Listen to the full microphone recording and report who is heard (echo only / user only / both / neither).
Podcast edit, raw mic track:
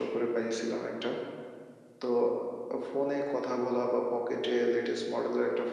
echo only